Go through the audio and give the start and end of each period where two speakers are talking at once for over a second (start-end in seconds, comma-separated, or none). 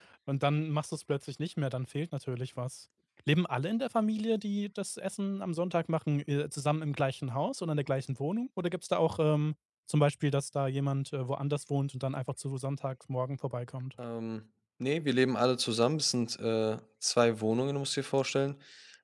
none